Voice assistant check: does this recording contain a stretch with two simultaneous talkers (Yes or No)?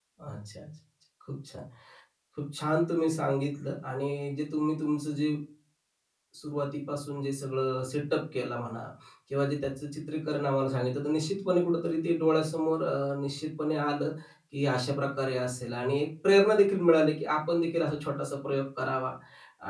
No